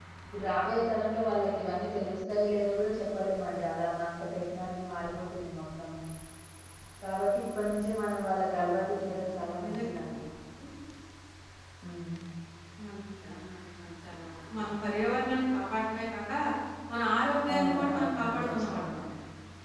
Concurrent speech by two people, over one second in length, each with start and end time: 17.5-19.0

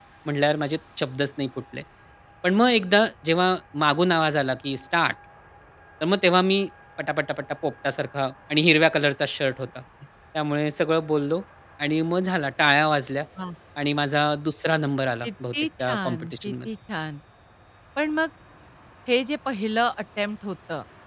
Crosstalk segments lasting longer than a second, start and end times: 15.2-16.7

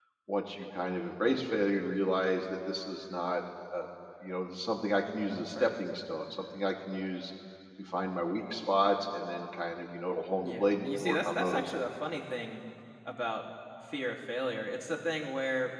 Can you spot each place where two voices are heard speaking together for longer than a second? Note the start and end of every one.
10.4-11.7

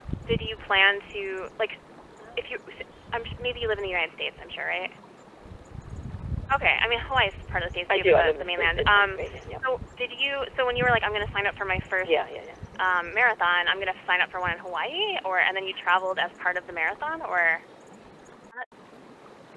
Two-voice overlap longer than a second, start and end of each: 7.9-9.3

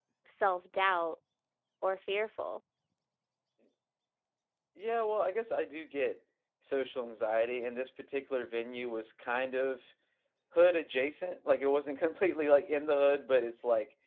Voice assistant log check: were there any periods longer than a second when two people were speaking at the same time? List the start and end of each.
none

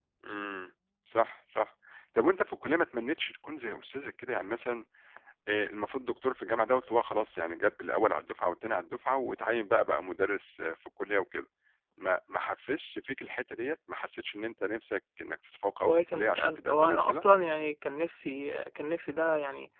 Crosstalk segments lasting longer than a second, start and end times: 15.8-17.2

